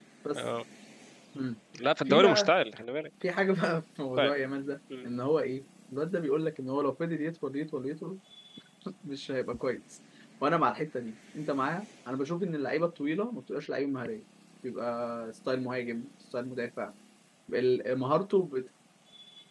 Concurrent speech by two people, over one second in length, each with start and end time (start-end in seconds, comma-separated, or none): none